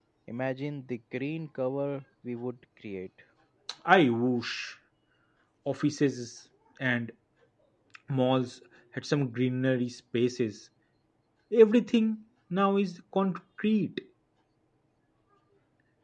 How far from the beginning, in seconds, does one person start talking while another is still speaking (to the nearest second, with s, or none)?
none